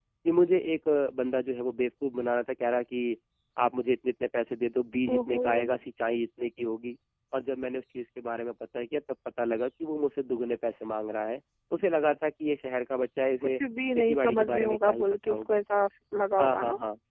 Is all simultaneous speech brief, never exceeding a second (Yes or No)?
No